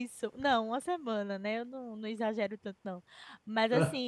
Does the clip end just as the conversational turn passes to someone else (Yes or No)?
No